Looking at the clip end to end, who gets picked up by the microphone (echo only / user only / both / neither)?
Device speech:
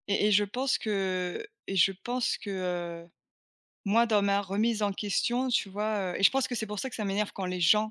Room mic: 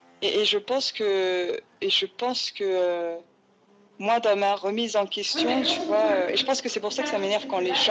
both